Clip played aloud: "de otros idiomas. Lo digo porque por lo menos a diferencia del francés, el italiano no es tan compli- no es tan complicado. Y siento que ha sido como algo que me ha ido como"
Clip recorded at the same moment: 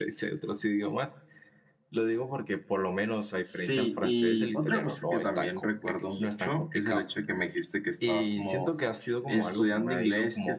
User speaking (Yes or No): Yes